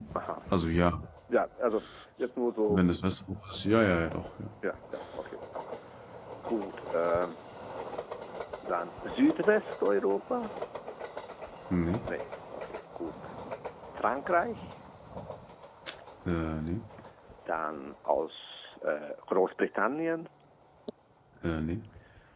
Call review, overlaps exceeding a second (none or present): none